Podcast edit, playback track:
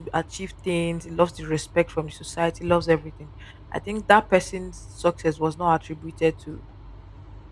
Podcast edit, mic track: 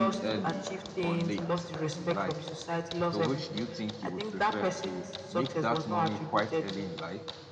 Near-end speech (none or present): present